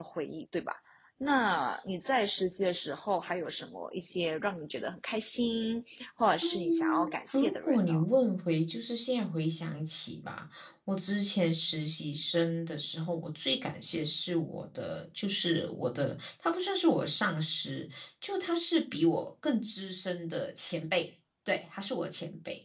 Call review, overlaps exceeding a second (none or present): present